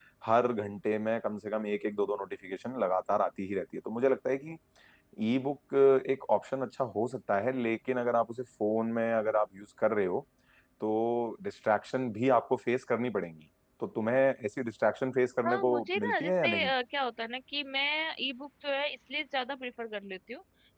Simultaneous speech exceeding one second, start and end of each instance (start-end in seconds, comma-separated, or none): 15.5-16.7